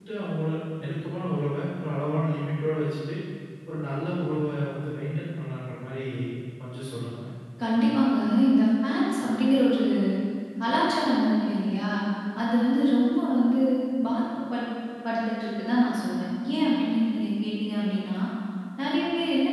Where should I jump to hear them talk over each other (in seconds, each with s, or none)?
none